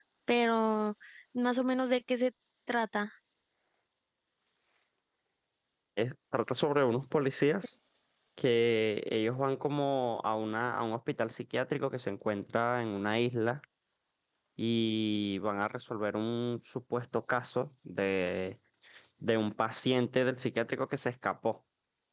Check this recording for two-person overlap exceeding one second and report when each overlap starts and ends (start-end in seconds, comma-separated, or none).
none